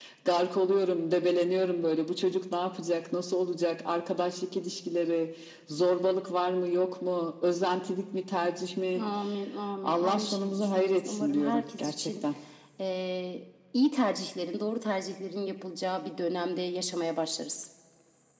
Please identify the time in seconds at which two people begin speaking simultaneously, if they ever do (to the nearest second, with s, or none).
10 s